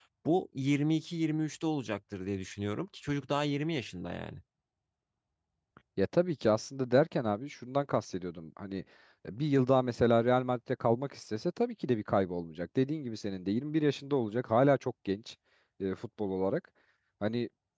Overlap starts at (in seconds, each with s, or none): none